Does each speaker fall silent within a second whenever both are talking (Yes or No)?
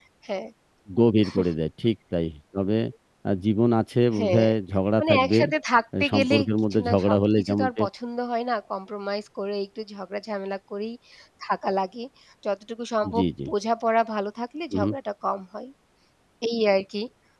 No